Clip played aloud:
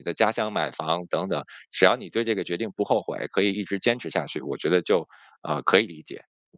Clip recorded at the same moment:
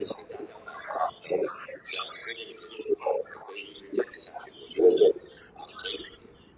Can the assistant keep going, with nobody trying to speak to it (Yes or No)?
Yes